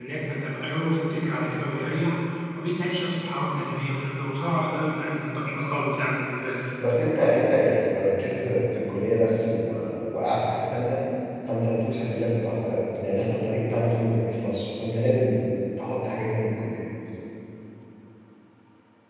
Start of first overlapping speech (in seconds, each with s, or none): none